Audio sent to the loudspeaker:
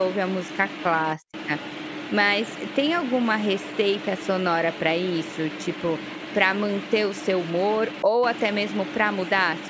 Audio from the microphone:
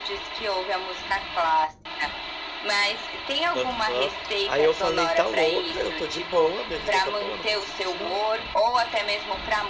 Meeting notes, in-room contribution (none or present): present